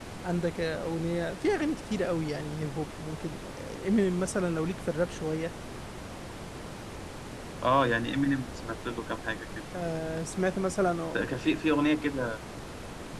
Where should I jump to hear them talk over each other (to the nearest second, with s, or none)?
none